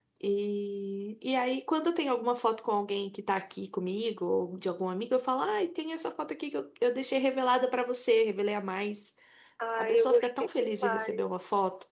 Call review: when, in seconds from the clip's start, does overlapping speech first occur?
10 s

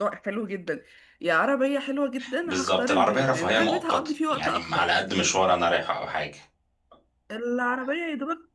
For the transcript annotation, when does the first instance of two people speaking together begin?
2 s

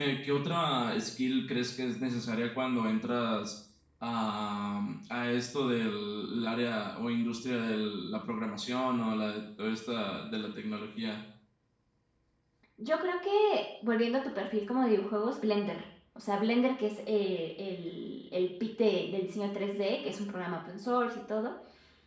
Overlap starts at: none

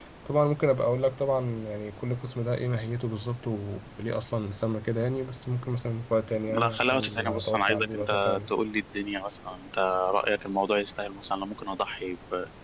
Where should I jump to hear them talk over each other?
6 s

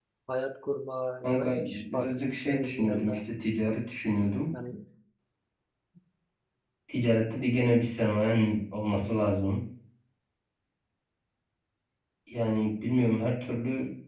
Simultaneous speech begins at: 1 s

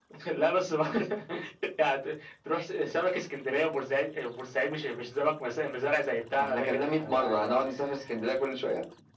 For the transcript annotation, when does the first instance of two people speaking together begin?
6 s

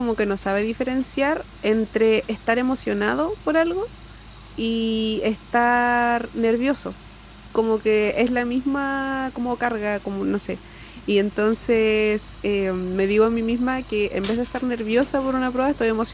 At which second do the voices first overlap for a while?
none

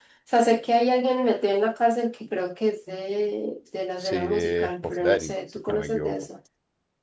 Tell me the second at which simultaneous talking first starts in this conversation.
4 s

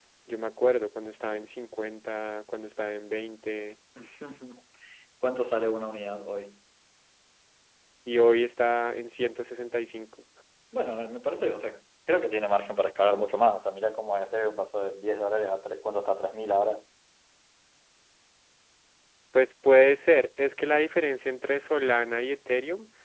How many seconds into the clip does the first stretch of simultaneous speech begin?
none

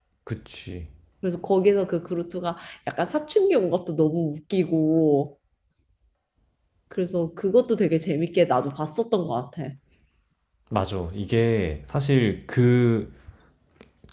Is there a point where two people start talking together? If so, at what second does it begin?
none

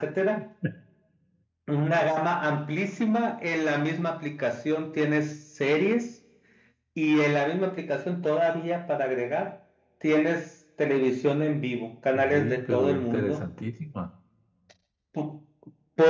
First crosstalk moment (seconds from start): 12 s

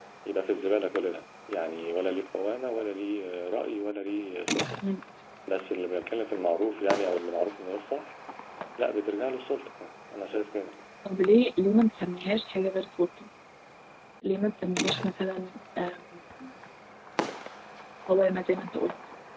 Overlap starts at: none

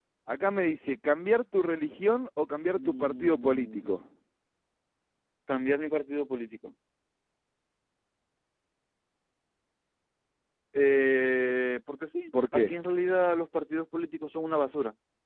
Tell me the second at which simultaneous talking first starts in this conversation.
3 s

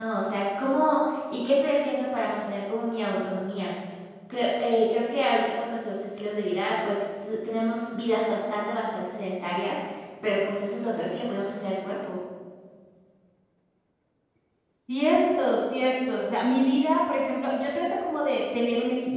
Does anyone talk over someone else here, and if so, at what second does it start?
none

